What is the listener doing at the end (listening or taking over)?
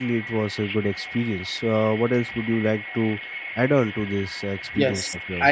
taking over